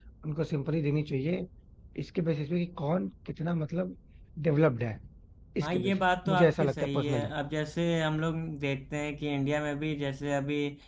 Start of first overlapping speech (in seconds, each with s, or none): 5.6 s